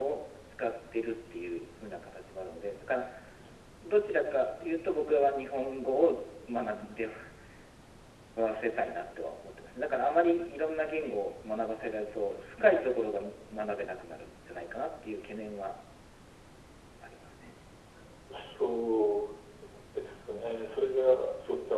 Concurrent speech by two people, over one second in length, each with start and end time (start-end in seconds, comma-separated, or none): none